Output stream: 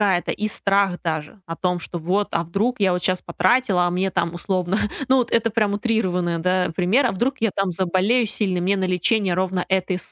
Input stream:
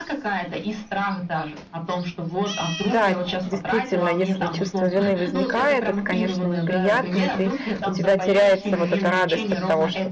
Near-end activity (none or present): present